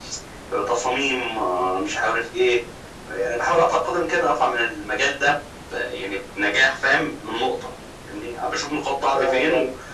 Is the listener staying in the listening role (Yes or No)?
Yes